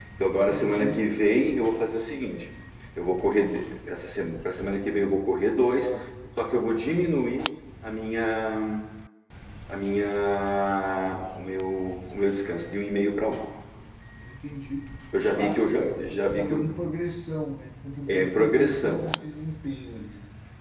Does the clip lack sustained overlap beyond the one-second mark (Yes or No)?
No